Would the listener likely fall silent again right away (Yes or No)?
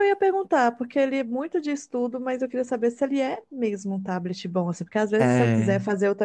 Yes